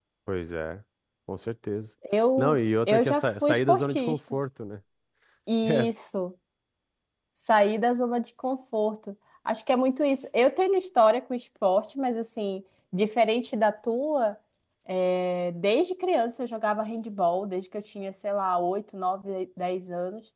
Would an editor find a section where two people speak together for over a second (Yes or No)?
Yes